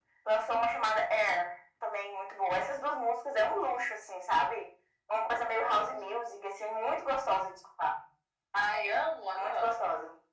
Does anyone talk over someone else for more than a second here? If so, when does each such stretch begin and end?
none

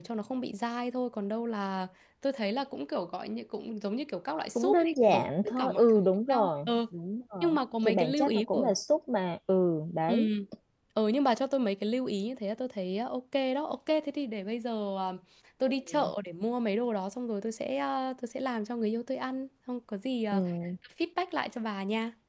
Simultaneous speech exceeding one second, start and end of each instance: 4.5-6.8, 7.4-8.7

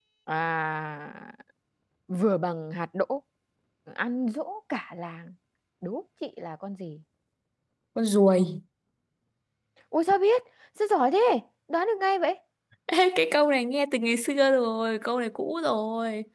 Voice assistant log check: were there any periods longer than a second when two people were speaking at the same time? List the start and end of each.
none

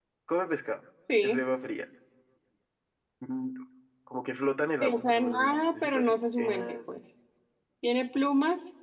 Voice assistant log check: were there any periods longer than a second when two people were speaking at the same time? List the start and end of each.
4.8-6.8

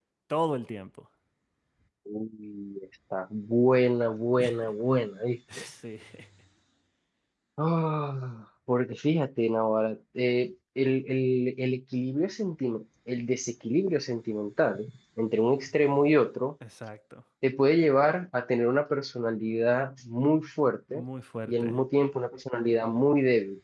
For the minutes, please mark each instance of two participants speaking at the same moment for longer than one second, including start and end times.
none

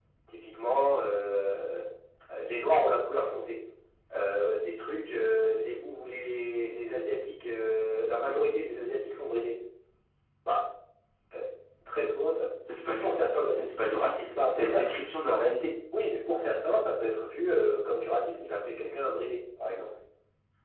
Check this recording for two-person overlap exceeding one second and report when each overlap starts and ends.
none

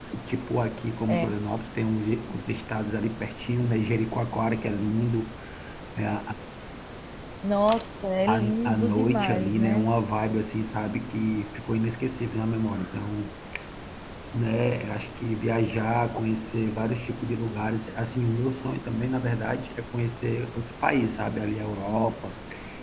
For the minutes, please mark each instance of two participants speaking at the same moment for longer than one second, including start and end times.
8.3-9.9

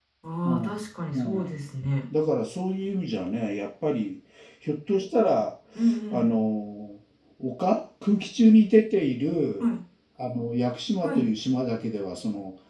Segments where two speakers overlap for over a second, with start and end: none

